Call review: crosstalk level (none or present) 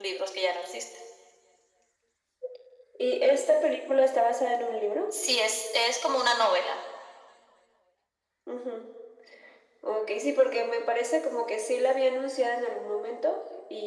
none